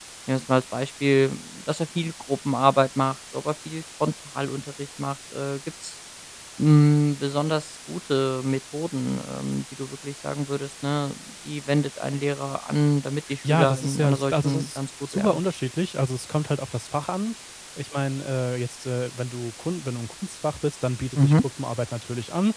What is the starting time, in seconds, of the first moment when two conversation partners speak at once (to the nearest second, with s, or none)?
13 s